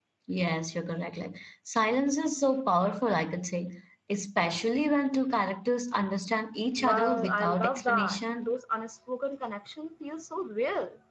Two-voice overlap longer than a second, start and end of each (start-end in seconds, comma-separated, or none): 6.8-8.6